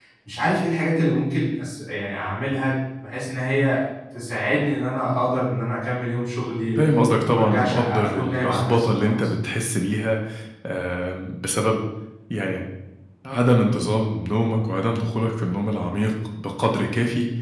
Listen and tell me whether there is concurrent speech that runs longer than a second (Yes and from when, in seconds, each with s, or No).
Yes, from 7.2 s